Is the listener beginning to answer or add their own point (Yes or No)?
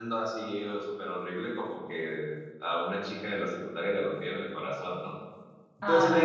No